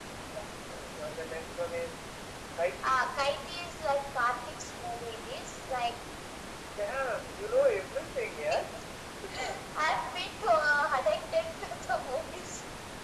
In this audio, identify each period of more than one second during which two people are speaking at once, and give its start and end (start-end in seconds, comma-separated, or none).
none